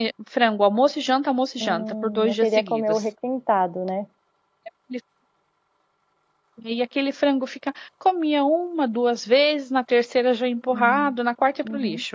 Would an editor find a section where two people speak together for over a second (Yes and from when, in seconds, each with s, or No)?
Yes, from 1.6 s